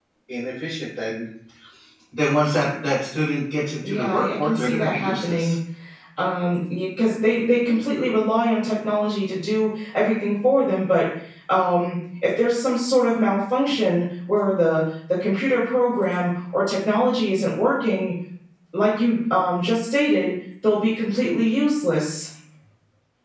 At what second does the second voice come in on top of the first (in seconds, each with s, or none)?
3.8 s